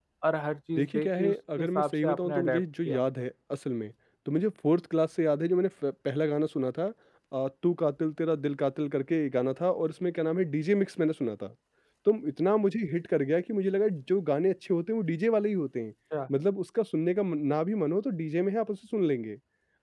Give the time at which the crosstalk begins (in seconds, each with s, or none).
0.8 s